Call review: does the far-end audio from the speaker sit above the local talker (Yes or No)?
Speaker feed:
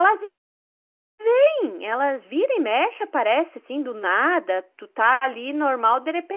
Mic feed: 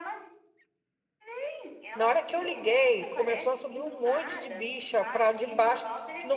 No